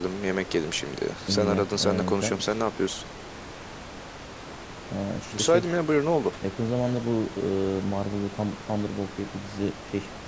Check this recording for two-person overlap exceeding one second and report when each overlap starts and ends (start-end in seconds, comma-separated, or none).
1.3-2.6